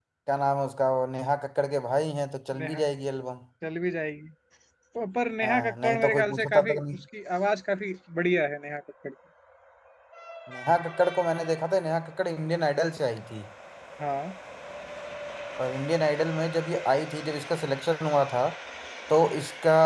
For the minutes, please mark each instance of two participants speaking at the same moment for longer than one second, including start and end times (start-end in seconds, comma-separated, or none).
5.4-7.0